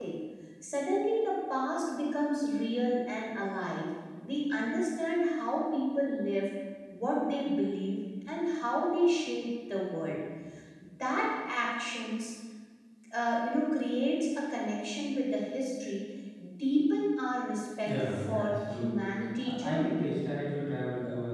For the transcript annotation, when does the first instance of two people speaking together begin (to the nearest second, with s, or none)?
18 s